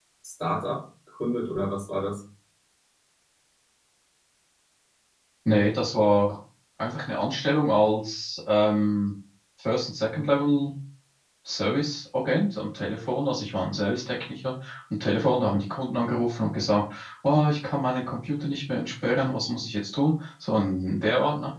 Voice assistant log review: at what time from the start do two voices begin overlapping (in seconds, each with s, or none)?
none